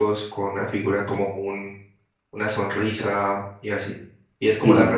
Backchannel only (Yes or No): Yes